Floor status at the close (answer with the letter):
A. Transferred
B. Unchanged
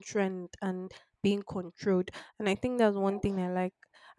B